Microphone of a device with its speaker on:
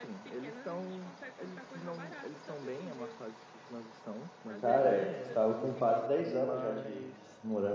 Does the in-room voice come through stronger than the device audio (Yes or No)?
Yes